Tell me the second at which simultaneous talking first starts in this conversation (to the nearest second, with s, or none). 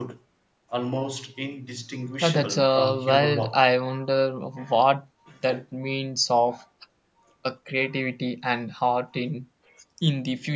2 s